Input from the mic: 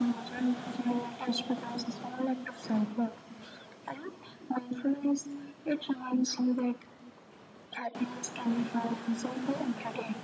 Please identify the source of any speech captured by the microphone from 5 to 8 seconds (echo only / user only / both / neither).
echo only